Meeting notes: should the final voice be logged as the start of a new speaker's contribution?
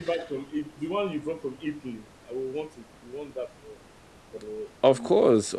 Yes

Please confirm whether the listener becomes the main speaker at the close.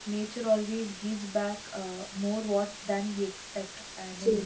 No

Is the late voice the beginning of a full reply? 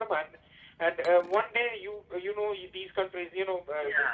No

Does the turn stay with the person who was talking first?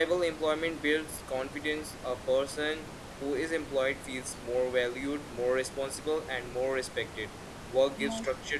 Yes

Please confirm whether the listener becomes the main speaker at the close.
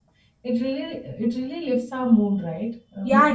Yes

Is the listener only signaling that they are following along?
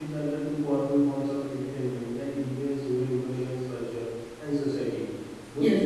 Yes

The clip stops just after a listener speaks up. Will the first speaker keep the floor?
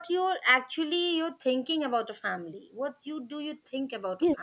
No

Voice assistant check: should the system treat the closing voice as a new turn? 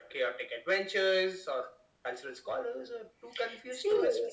Yes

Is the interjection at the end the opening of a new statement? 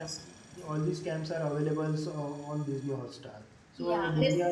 No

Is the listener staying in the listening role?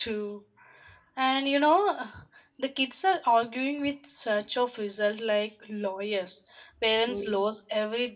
Yes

